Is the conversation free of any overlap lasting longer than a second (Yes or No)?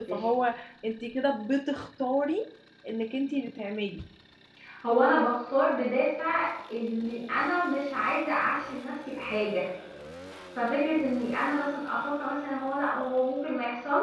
Yes